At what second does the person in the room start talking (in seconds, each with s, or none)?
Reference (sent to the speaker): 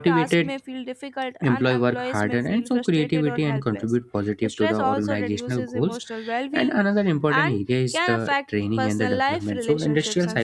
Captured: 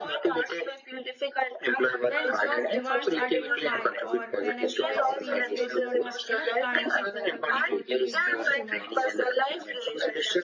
2.0 s